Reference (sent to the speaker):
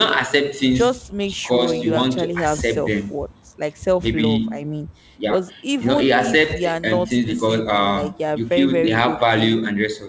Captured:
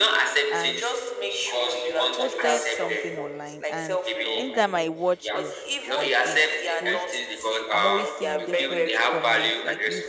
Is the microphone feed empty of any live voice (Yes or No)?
No